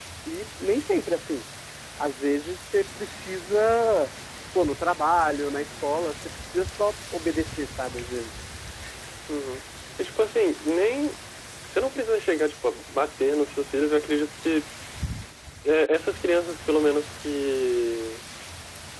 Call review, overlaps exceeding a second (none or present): none